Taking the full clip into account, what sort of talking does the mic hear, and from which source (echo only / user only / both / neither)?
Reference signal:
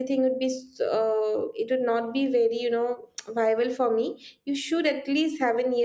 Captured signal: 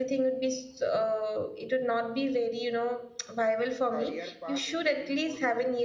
both